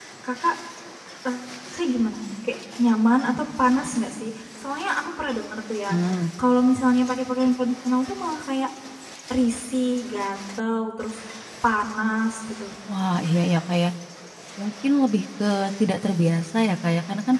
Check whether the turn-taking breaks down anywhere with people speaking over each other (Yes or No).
No